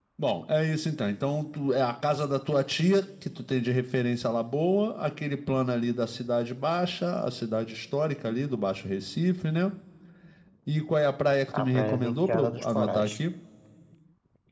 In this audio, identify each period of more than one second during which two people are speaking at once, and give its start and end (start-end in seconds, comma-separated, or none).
11.6-13.2